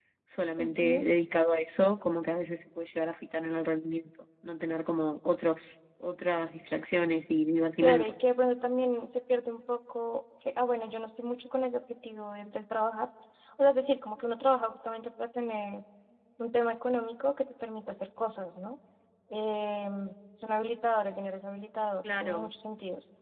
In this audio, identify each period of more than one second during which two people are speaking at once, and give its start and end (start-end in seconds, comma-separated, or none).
none